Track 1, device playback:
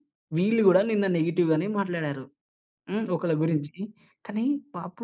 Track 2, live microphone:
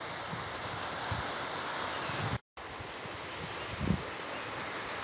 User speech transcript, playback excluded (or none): none